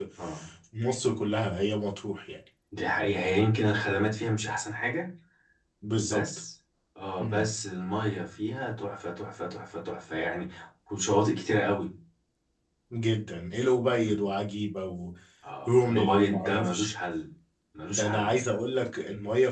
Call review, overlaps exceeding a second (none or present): present